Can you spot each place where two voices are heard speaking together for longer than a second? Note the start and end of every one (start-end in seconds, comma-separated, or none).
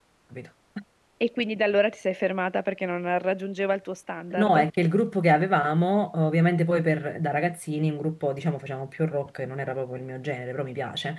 none